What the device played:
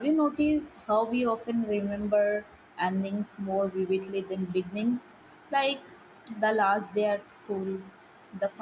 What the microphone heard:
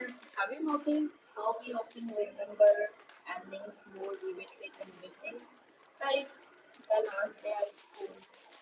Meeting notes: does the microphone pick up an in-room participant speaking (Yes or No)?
No